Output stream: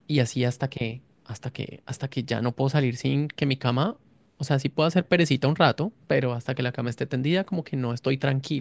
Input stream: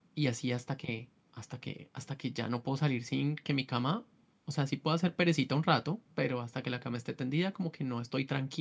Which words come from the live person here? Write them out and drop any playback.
none

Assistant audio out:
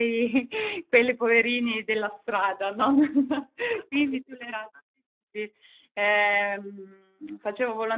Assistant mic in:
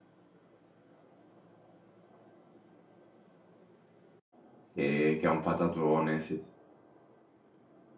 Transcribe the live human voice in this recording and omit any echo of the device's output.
e- che è un patatone, sì.

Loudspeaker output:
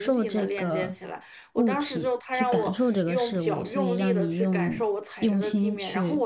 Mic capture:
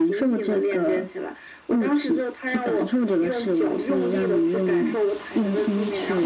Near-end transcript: none

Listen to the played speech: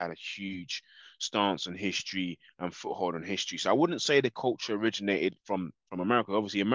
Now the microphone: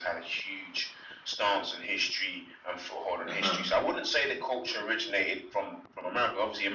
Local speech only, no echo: Uh-huh.

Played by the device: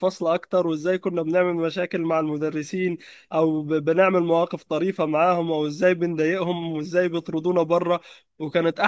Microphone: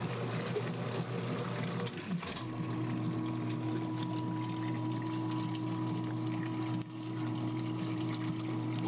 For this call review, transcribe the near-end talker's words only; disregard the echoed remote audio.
none

